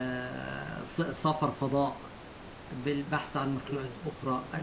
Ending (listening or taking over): listening